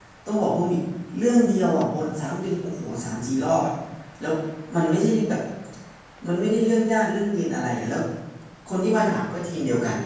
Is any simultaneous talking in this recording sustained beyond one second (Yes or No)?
No